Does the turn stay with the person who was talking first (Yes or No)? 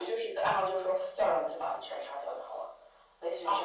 No